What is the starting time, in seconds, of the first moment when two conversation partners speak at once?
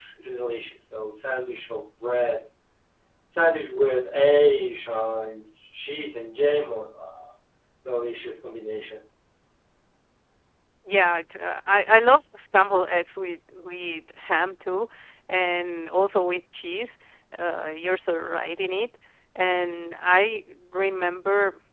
none

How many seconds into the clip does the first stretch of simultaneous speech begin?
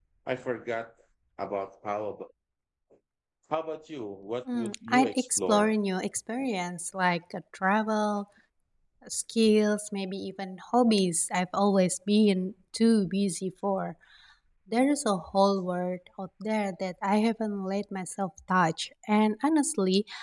4 s

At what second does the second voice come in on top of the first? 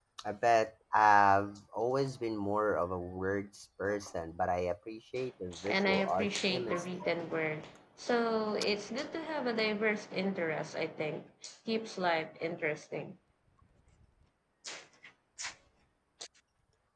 6 s

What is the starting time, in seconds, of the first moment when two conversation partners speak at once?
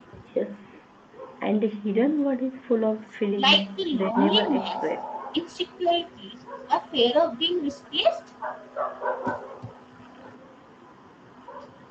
3 s

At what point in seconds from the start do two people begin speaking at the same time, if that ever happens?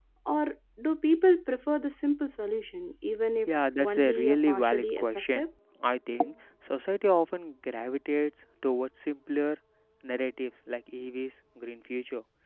3 s

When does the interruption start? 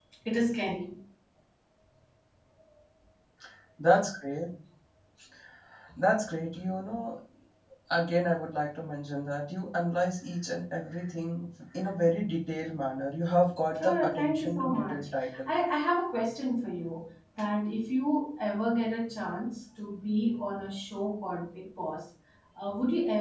14 s

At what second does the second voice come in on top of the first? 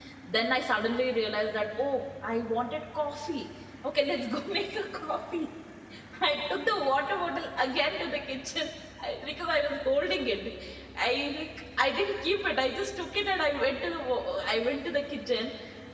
none

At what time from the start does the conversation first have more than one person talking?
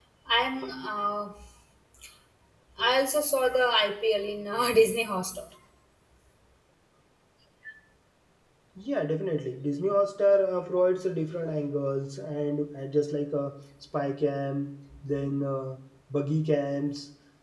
none

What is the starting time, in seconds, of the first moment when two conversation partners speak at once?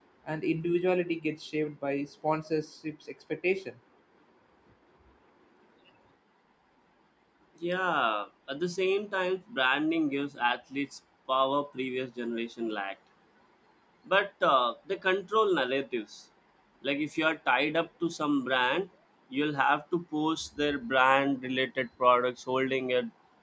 none

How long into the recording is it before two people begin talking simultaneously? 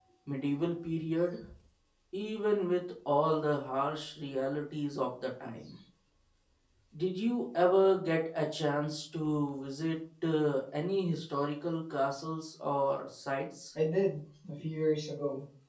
none

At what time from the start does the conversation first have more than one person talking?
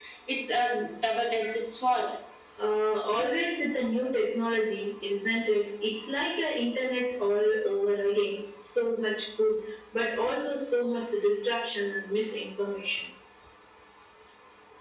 none

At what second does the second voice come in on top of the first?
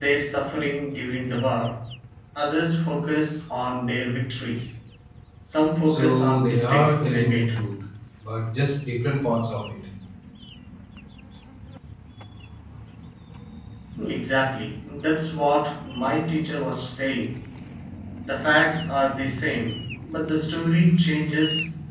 6 s

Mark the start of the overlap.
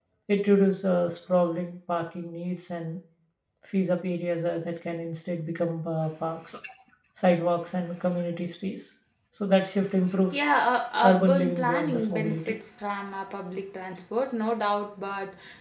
11 s

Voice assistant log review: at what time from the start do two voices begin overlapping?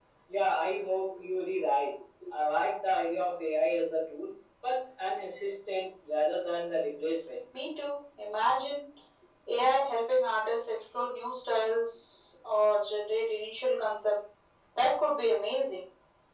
none

